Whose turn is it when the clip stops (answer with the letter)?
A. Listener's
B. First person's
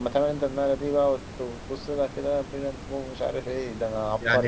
A